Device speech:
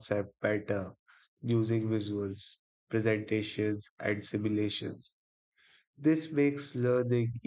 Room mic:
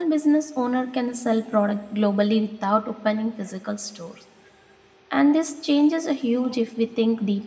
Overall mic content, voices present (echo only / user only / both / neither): user only